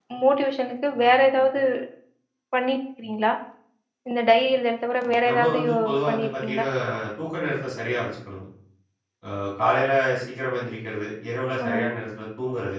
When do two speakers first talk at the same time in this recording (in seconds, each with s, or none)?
5.3 s